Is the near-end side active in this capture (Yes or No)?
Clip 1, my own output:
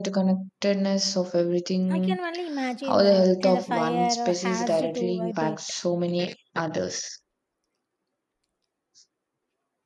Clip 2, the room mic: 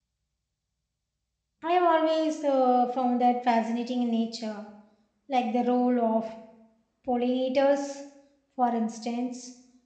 Yes